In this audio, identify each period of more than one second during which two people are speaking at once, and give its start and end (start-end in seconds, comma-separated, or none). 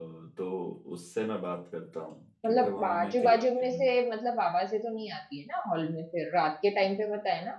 2.4-3.8